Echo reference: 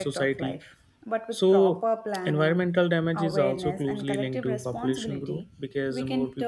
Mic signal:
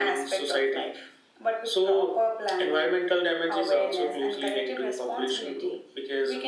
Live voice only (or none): none